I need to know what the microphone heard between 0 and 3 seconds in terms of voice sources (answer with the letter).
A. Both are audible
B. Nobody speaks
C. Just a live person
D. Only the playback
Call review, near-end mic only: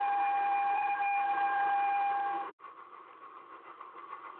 B